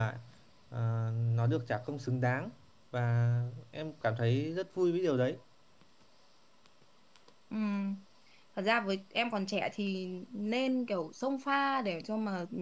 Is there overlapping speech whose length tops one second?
No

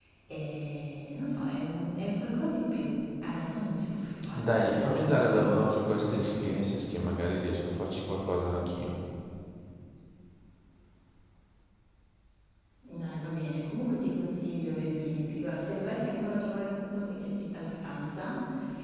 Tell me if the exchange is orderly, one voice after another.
No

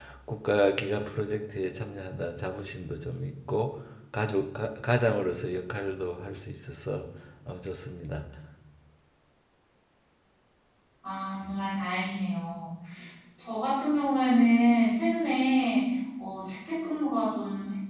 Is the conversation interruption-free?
Yes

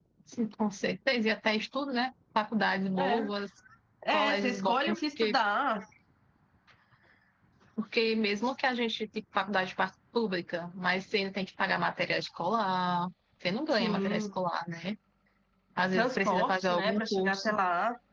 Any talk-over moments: Yes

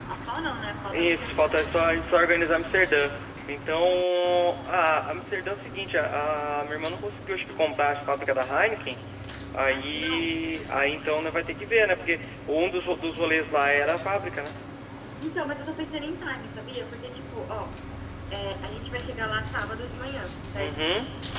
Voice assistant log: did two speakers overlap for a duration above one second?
Yes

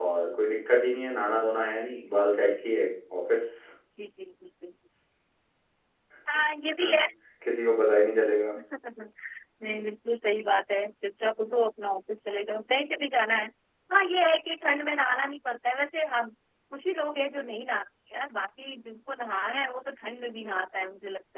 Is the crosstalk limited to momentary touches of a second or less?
Yes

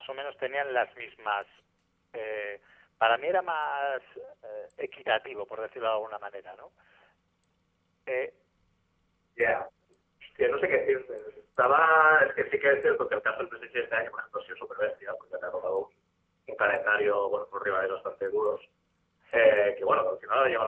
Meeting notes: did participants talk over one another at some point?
No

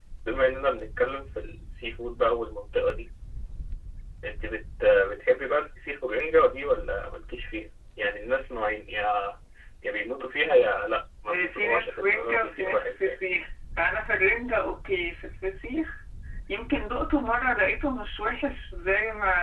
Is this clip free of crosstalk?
No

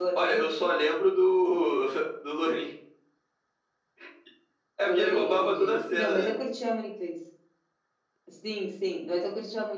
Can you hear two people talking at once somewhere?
Yes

